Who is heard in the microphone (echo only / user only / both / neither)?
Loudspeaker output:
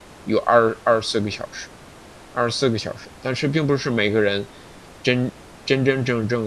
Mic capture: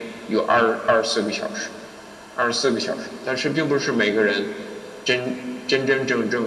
echo only